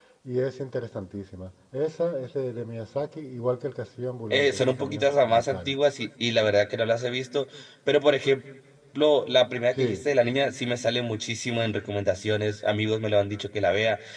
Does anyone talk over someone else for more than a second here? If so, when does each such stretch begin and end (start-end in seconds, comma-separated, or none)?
4.3-5.7